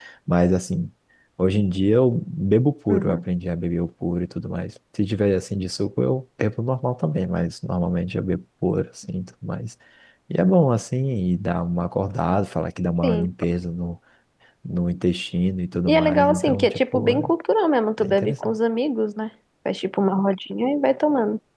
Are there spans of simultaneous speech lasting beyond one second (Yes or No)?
Yes